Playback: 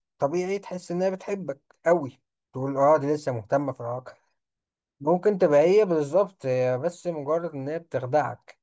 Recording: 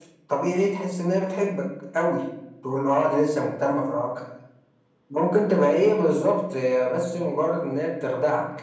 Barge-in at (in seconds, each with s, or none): none